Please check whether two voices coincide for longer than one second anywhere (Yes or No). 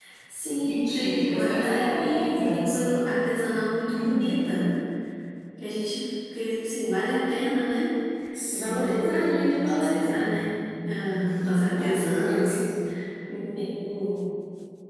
Yes